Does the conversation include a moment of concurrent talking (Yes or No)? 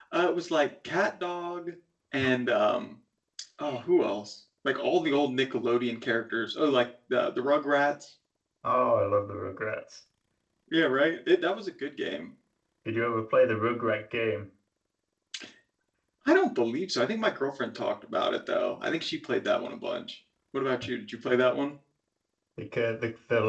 No